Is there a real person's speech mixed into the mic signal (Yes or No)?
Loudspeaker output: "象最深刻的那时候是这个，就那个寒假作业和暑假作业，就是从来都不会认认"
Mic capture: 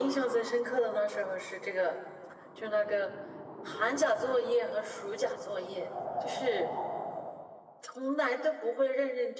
No